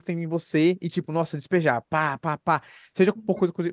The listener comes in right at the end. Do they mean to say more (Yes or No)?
No